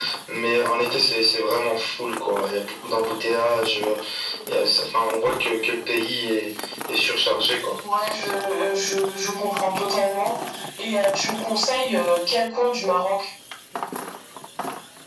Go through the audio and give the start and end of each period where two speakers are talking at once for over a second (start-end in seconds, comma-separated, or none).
none